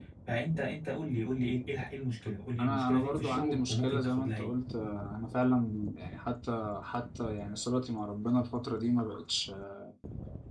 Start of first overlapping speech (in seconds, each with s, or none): 2.6 s